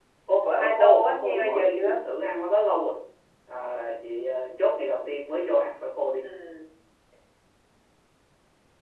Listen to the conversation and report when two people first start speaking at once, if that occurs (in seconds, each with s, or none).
0.6 s